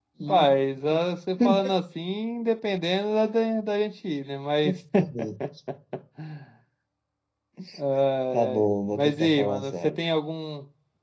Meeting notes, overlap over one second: present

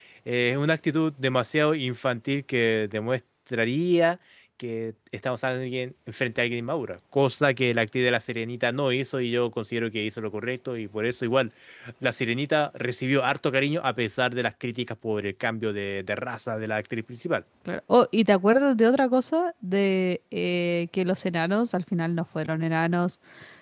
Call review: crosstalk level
none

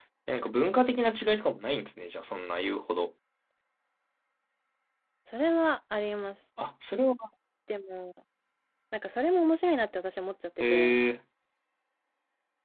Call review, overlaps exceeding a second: none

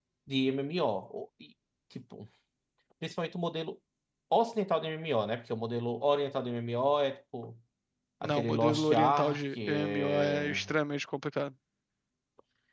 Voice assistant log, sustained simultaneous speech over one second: present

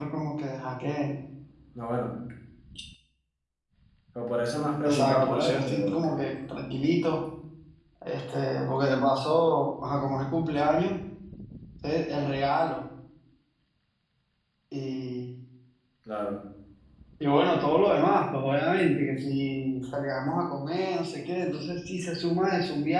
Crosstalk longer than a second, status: present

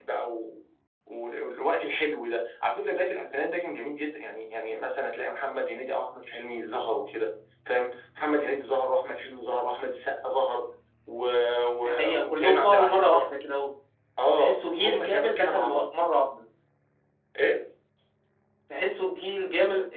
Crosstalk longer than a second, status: present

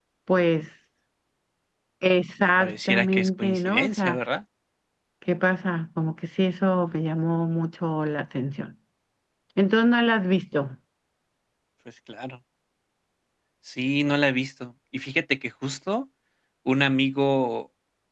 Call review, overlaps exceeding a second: present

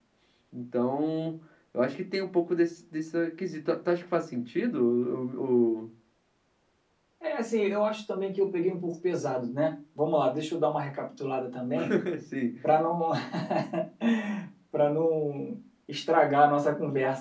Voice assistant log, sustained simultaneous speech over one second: none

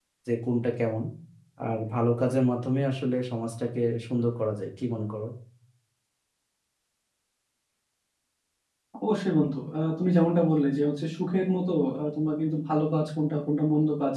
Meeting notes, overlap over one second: none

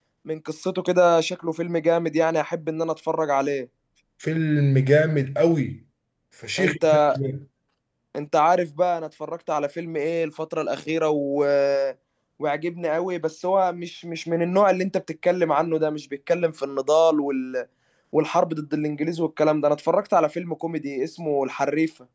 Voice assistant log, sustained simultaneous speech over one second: none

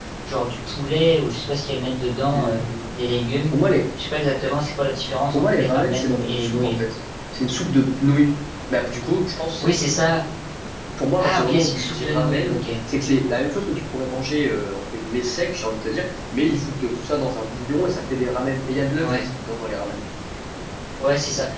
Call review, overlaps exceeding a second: present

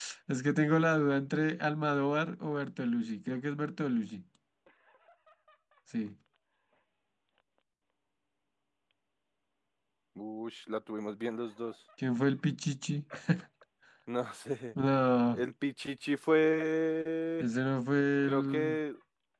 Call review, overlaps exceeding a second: none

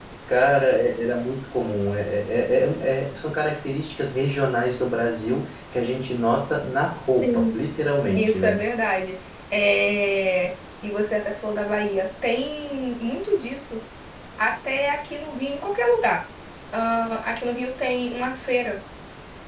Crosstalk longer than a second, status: none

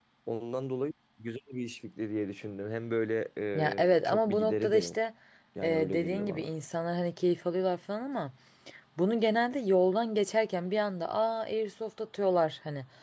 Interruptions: present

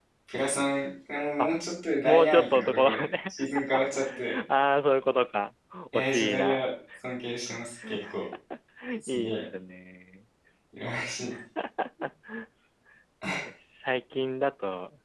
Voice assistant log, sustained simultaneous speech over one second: present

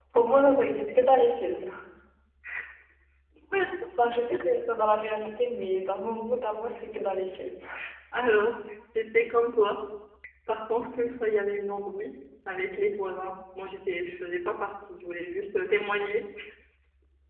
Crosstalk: none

